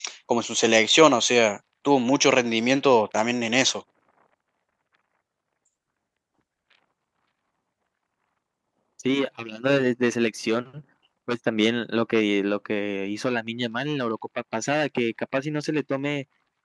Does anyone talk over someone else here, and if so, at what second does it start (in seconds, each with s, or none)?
none